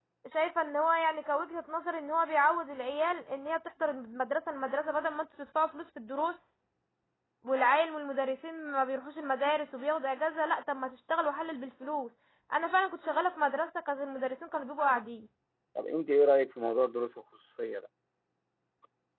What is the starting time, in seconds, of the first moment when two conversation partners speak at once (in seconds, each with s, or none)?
none